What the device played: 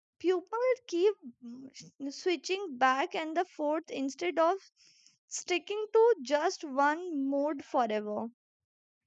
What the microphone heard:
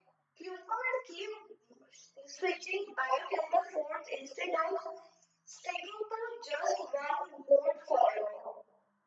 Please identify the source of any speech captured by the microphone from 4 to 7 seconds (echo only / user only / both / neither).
echo only